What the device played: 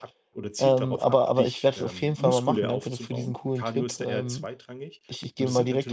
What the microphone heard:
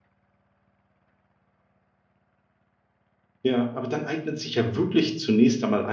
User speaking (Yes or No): Yes